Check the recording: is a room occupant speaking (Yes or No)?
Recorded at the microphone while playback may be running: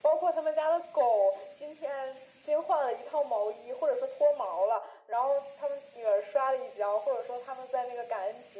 No